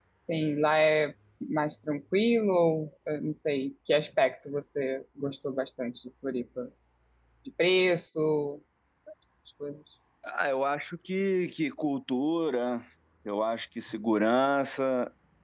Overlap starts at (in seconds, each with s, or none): none